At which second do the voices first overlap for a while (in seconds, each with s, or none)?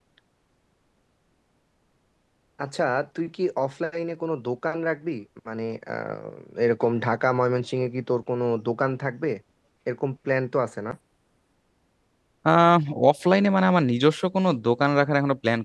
none